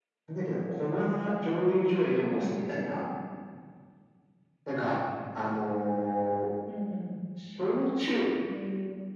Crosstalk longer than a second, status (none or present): none